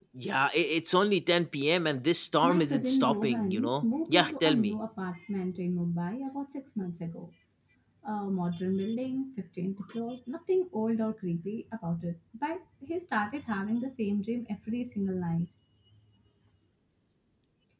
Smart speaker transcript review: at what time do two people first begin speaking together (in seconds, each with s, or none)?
2.4 s